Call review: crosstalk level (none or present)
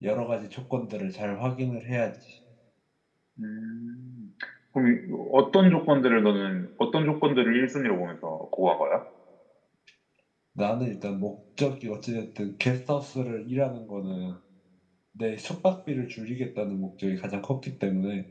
none